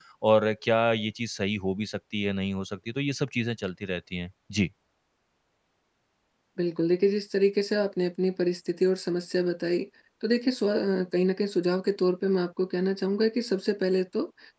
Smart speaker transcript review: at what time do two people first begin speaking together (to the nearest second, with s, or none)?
none